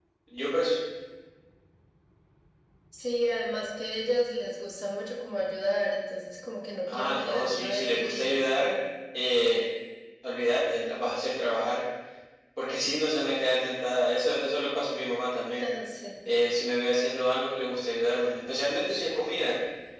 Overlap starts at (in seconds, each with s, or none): 6.9 s